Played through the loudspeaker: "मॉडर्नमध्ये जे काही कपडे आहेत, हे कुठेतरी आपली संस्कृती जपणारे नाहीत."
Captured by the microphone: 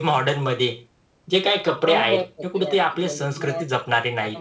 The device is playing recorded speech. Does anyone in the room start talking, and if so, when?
2 s

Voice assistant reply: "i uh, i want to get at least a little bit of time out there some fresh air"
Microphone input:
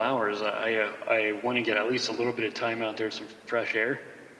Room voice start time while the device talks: none

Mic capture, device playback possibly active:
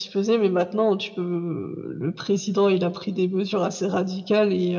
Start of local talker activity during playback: none

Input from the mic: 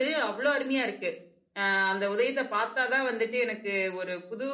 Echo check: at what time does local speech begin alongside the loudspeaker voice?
none

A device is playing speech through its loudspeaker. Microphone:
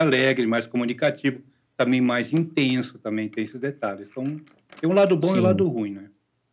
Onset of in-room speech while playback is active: 5 s

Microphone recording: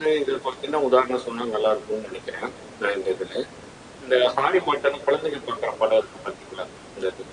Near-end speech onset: none

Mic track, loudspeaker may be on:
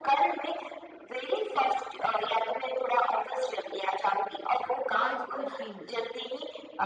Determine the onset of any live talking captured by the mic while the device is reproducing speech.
5 s

